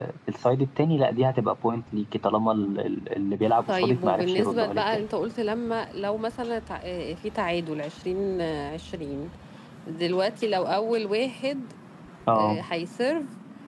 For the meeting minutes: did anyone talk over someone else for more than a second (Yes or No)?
Yes